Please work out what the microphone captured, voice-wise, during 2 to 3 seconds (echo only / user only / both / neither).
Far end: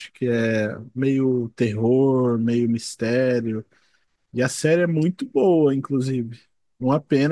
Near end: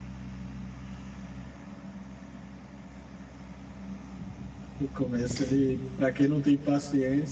neither